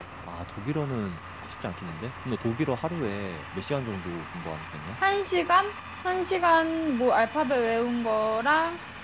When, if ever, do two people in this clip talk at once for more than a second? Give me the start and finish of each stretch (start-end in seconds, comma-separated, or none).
none